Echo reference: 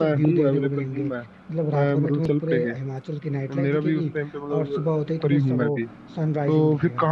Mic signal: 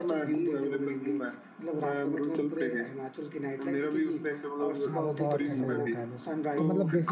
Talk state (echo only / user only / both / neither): both